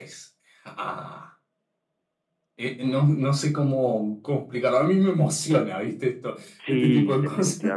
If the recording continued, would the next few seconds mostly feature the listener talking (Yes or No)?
Yes